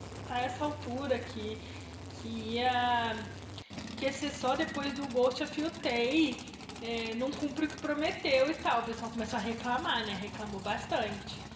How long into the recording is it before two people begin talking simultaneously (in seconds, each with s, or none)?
none